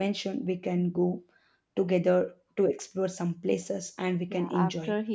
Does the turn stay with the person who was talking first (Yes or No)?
No